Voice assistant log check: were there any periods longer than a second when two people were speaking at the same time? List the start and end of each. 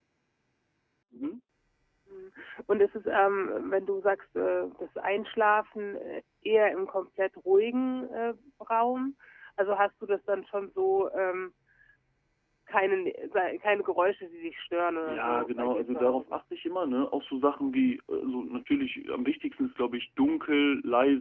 15.0-16.4

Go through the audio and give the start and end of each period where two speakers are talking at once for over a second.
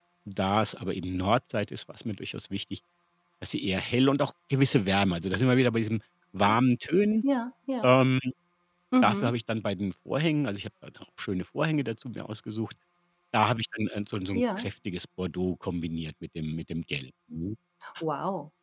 none

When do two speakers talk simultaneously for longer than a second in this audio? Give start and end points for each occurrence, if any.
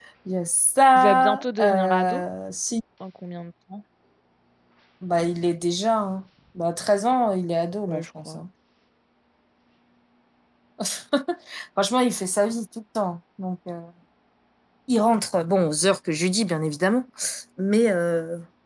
0.9-2.2

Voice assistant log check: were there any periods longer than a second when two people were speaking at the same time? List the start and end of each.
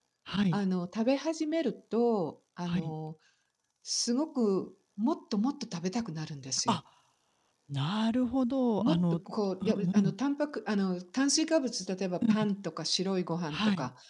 none

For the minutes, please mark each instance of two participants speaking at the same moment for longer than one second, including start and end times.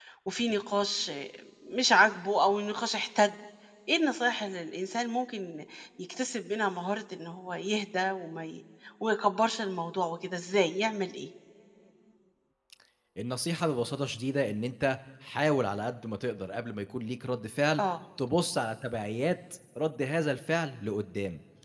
none

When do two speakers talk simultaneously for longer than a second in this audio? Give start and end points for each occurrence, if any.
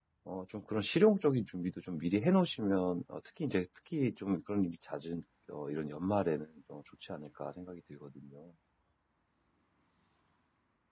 none

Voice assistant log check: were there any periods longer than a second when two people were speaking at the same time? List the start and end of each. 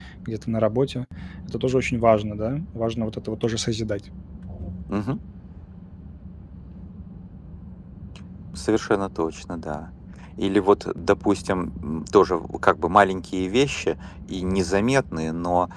none

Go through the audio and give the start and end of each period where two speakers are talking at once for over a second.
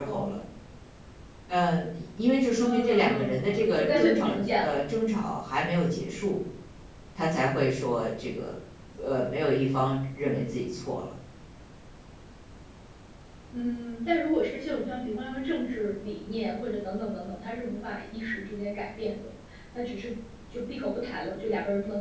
2.6-4.8

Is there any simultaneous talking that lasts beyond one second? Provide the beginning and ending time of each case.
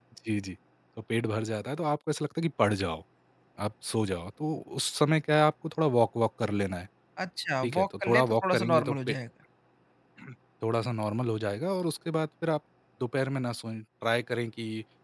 7.6-9.2

